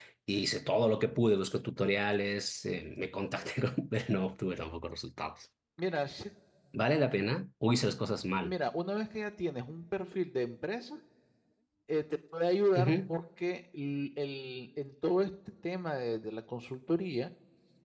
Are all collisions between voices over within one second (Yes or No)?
Yes